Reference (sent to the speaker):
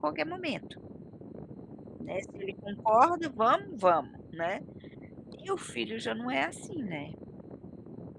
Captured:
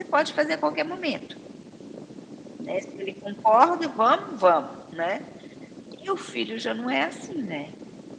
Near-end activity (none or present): none